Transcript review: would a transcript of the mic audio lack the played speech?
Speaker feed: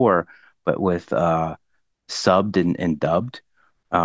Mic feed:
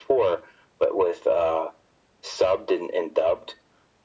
No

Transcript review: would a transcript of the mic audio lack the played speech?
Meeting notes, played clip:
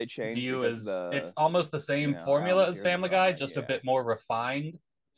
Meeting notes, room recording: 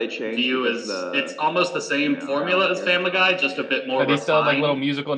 No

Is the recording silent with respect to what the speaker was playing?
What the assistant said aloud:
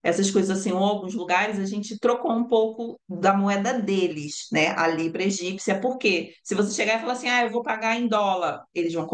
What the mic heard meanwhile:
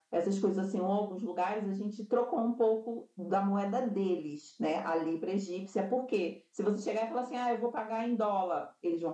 No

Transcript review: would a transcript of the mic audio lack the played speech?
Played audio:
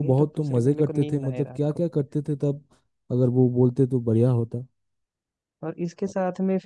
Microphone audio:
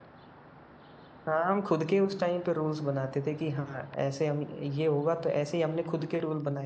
Yes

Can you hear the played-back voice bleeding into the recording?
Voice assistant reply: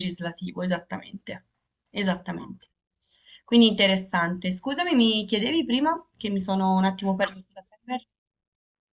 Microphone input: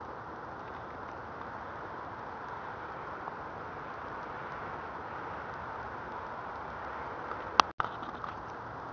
No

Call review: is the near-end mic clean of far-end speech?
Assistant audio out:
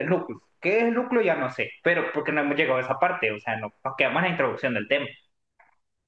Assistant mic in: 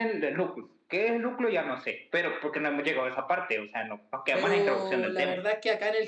No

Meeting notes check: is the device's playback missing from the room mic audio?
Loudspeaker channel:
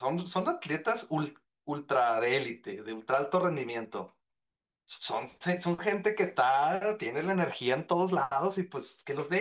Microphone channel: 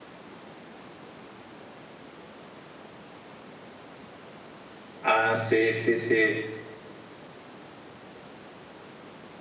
Yes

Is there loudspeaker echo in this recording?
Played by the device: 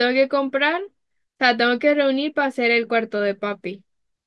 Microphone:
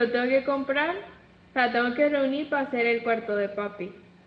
Yes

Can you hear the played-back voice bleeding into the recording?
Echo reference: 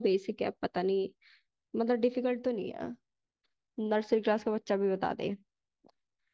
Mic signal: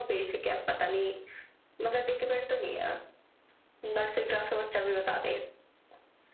Yes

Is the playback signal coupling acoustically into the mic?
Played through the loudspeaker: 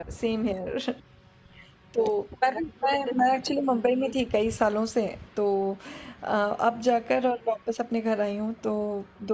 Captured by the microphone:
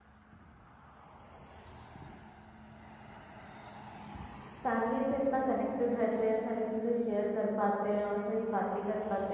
No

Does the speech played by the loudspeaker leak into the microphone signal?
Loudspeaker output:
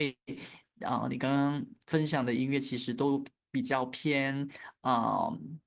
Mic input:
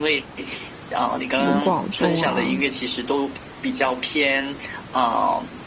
Yes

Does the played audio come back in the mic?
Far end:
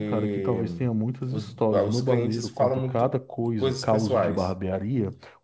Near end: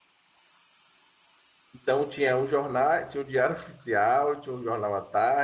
No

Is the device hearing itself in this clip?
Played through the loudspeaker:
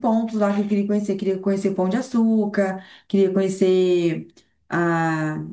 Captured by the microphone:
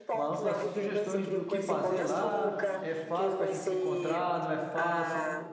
Yes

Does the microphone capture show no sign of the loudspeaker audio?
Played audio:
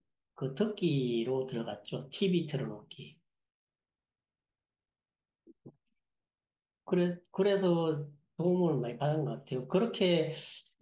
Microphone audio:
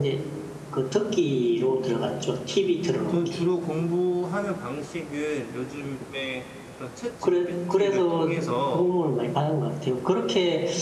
No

